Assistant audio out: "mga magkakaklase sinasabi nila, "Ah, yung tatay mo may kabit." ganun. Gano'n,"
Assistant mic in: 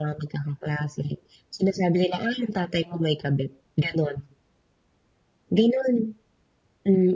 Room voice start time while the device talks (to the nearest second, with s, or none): none